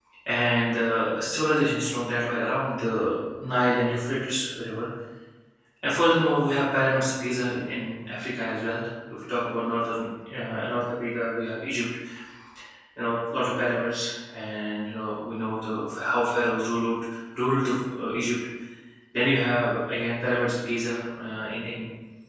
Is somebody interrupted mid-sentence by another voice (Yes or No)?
No